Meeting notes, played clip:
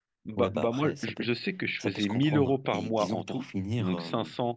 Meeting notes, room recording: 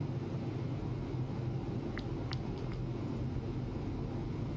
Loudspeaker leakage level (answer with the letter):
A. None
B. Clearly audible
A